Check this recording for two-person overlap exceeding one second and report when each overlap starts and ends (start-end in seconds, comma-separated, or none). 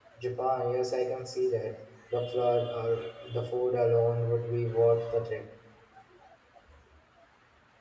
none